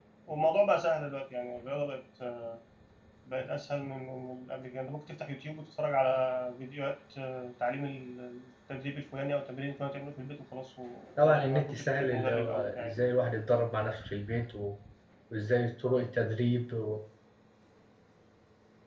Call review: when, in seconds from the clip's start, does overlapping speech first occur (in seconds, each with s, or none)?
11.2 s